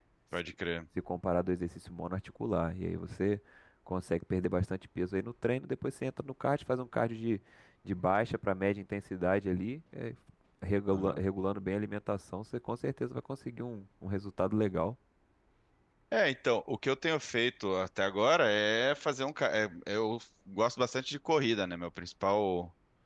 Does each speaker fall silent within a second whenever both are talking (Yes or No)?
Yes